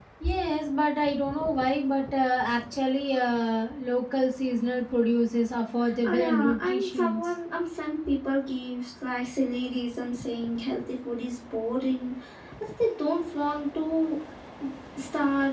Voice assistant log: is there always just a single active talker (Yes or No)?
No